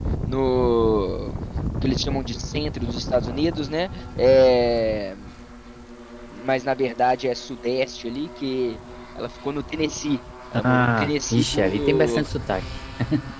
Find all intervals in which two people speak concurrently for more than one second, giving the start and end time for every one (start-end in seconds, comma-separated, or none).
10.6-12.3